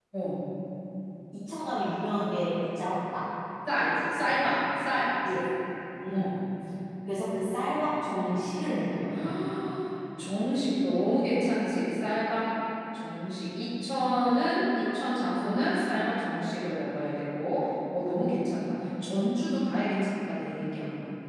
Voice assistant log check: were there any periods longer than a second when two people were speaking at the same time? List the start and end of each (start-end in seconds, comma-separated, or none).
none